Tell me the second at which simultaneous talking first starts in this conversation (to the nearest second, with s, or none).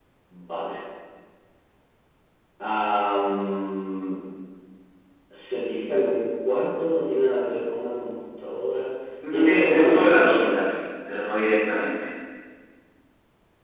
9 s